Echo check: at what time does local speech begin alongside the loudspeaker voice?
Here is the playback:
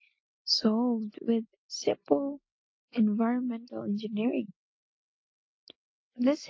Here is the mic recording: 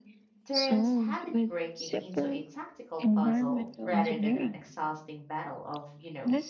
0 s

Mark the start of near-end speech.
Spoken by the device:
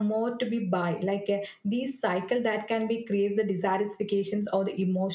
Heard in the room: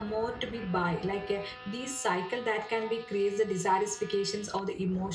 none

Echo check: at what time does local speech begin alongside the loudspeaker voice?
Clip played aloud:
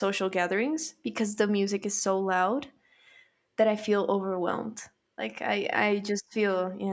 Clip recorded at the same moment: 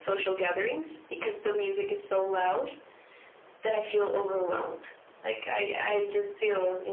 none

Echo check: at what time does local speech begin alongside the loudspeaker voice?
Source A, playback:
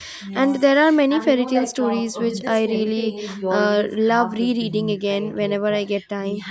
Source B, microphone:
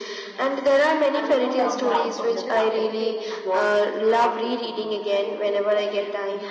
2 s

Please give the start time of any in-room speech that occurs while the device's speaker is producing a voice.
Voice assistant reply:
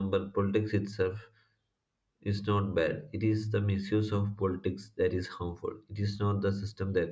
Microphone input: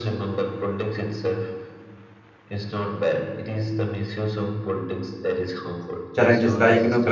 6 s

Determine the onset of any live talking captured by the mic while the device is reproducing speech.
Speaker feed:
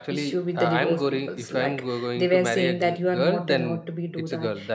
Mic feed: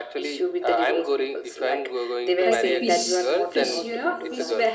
2 s

